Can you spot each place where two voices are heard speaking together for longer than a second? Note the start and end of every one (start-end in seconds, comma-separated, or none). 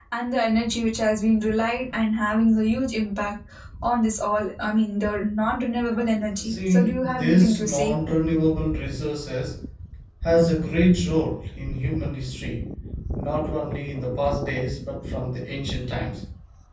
6.4-7.9